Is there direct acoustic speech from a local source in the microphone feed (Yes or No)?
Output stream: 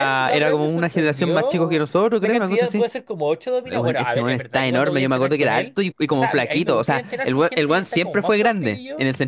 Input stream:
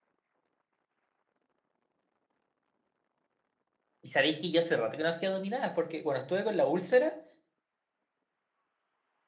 Yes